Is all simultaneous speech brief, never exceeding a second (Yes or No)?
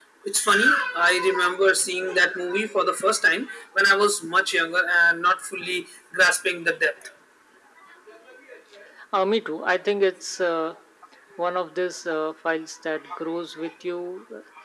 Yes